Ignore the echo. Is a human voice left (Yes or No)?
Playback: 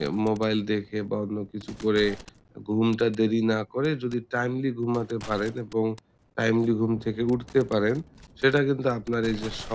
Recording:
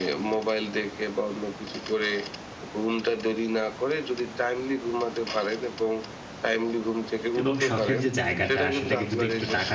Yes